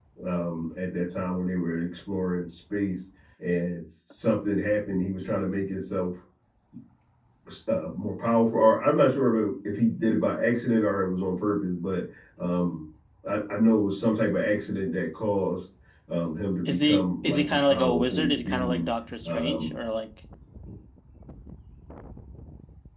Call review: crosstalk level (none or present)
present